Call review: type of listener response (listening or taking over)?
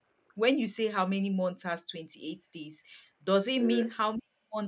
listening